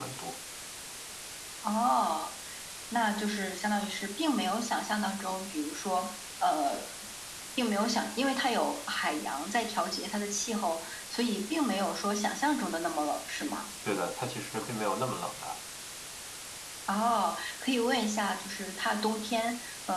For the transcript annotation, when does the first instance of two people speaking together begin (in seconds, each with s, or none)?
none